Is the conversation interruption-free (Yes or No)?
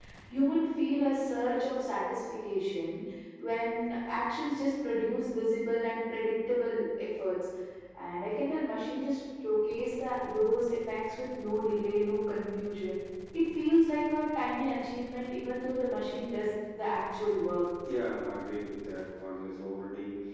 Yes